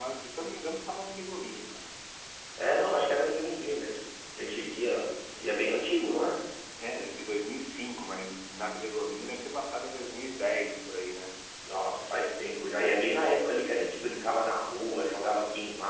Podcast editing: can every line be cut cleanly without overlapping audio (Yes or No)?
Yes